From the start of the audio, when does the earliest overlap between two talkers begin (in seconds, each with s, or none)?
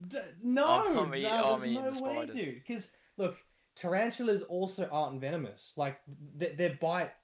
0.6 s